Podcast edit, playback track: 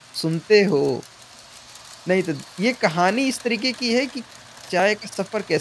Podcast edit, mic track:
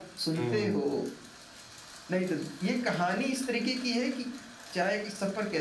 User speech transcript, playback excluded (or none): हुँ,